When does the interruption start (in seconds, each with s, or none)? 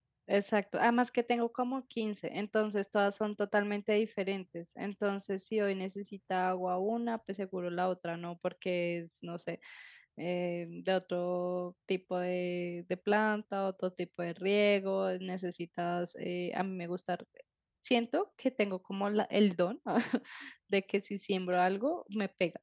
none